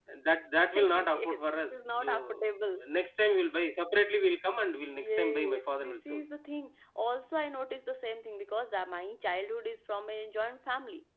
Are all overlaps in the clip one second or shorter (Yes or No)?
No